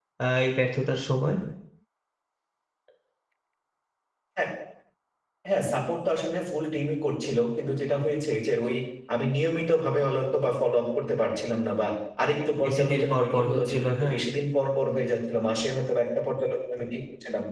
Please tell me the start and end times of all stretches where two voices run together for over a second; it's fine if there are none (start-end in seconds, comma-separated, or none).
12.7-14.2